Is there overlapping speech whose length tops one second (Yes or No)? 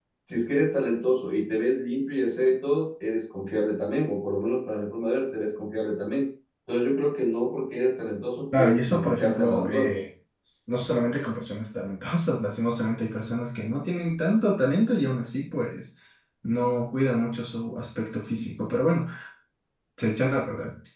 Yes